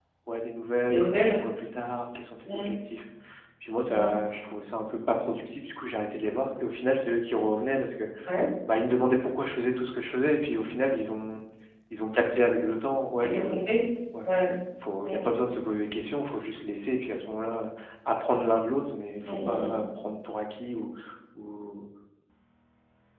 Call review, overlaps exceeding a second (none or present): none